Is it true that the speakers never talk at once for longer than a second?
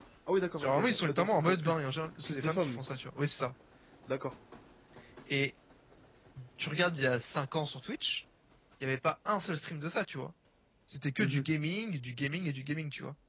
No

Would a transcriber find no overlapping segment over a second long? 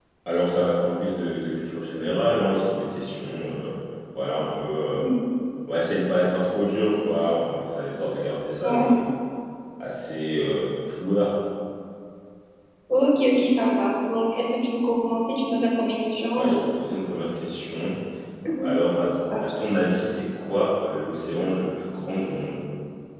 Yes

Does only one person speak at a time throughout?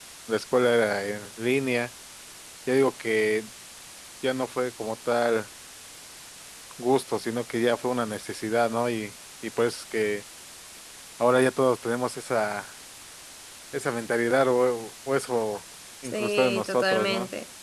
No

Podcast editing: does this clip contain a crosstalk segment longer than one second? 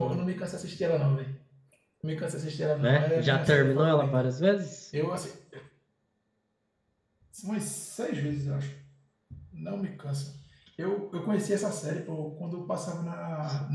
Yes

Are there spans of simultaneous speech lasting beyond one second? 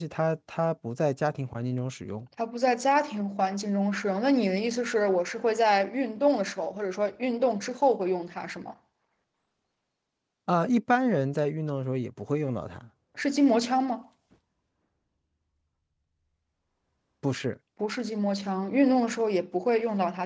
No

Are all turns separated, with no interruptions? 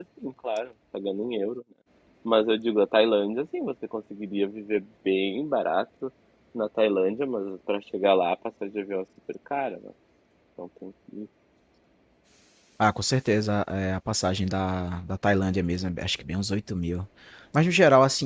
Yes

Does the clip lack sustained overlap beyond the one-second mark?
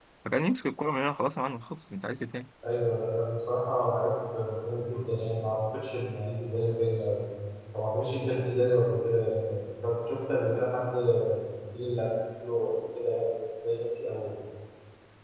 Yes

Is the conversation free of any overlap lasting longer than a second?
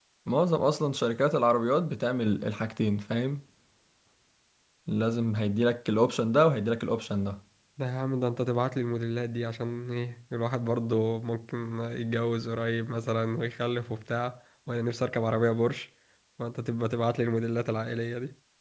Yes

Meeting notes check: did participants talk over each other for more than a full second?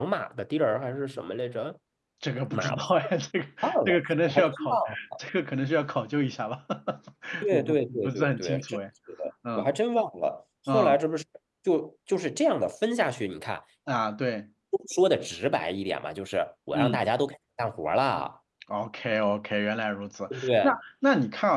Yes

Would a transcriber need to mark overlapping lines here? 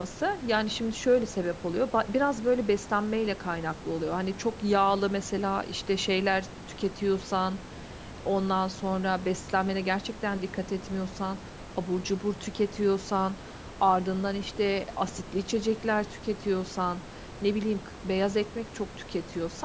No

